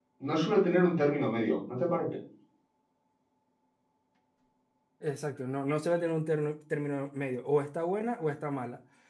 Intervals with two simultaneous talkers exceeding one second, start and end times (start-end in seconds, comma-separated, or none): none